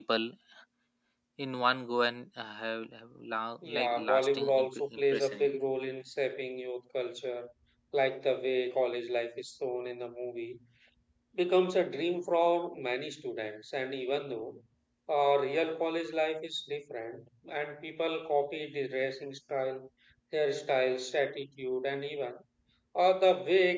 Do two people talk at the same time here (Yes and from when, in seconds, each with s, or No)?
Yes, from 3.6 s